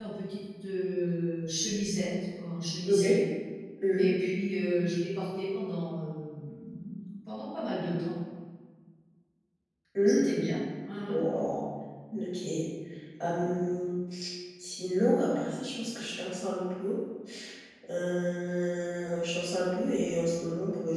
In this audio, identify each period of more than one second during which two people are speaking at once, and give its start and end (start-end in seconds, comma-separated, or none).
none